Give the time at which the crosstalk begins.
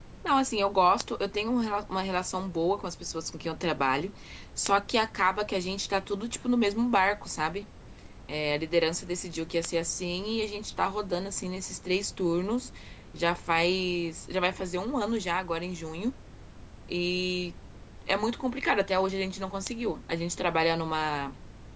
none

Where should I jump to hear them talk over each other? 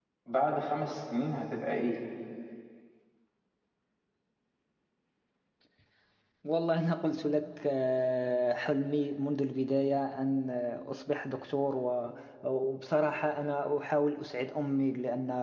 none

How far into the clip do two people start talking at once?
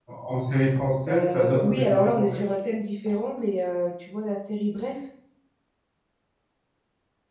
1.1 s

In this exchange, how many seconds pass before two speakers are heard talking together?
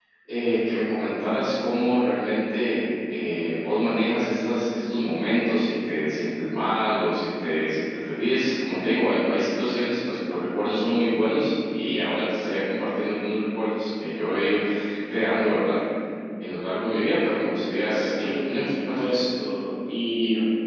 17.9 s

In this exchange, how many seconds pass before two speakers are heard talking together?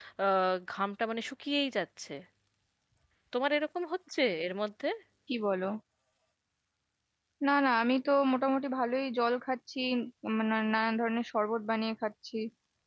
none

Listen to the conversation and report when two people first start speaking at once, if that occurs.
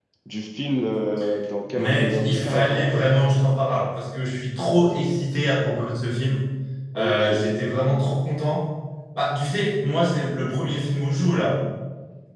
1.8 s

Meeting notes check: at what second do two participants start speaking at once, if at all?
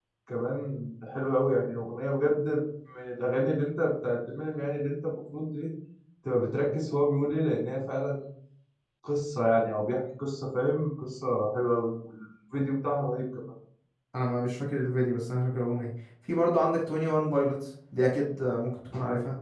none

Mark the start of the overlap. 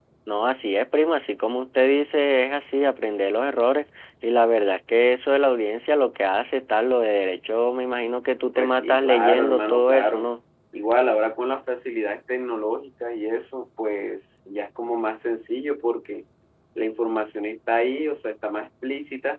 8.6 s

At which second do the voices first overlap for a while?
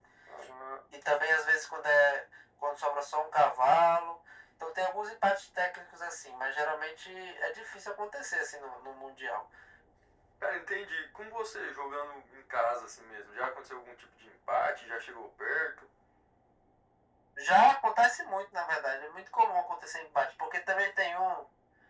none

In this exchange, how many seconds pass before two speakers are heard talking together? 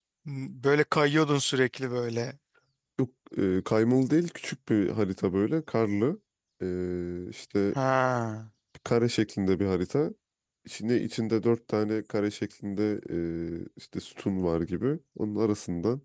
none

